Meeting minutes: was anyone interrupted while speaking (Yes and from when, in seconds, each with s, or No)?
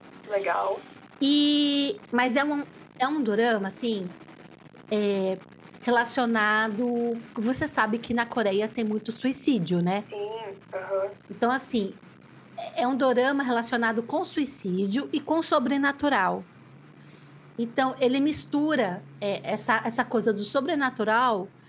No